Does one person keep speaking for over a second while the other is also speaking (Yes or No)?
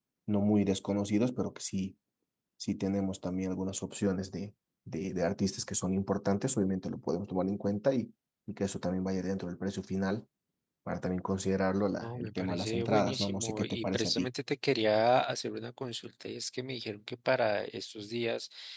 Yes